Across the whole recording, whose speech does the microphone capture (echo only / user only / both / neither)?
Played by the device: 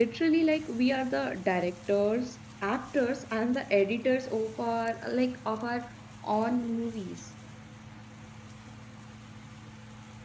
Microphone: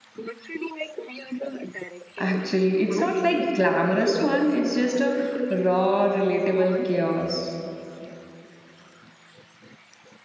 both